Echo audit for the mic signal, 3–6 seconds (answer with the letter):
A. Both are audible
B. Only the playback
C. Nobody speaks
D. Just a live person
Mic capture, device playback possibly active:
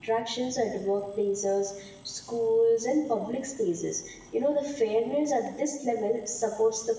D